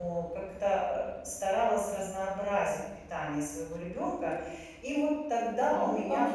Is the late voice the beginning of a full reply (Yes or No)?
Yes